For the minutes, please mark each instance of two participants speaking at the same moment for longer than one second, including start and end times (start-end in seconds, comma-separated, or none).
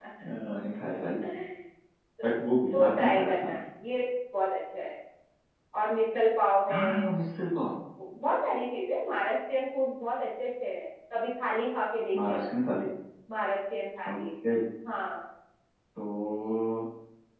2.2-3.5